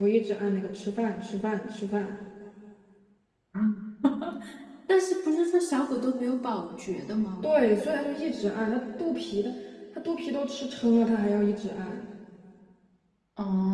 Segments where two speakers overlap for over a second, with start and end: none

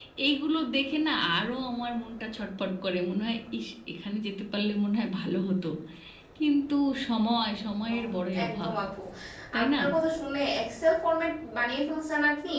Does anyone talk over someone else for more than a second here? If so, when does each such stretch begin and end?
none

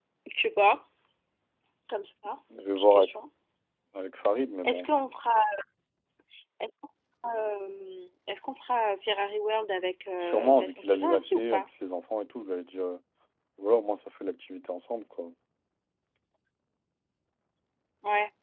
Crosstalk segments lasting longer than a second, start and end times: 10.2-11.6

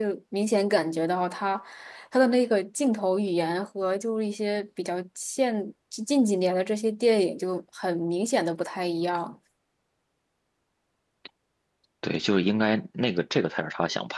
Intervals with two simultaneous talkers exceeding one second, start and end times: none

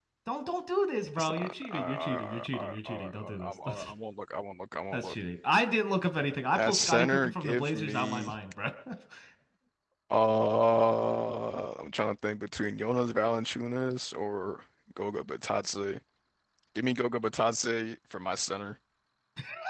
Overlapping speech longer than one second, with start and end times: 1.2-3.9, 6.6-8.4

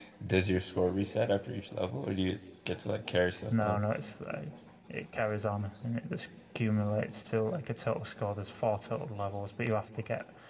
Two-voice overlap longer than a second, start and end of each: none

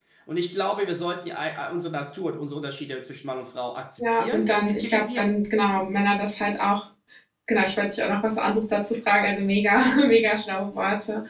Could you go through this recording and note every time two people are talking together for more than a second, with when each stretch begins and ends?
4.0-5.4

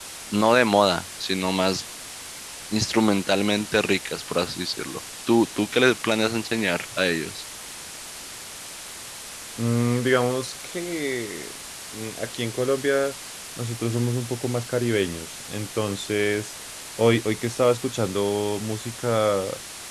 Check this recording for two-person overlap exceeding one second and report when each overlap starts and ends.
none

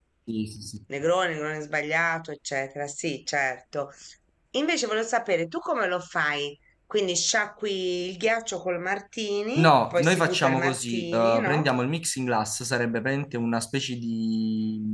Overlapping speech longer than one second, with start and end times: 9.6-11.7

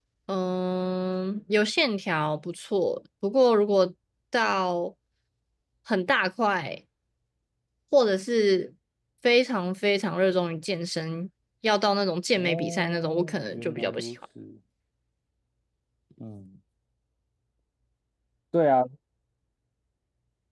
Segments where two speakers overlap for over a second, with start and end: 12.4-14.1

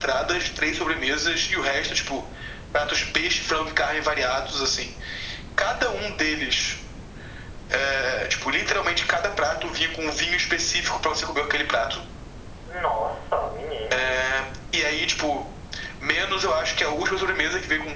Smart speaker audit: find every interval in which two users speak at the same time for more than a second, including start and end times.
none

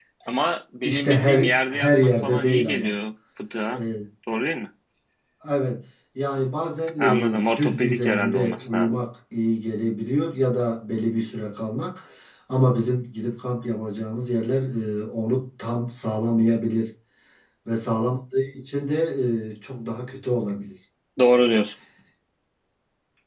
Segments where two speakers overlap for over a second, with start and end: 0.8-2.9, 7.0-8.9

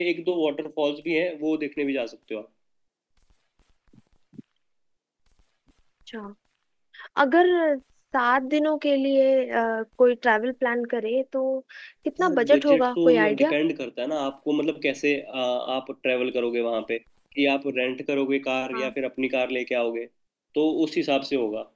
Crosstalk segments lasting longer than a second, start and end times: 12.2-13.5

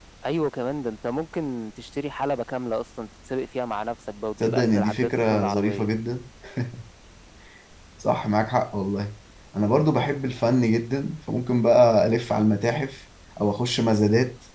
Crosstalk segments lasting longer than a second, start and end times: 4.4-5.9

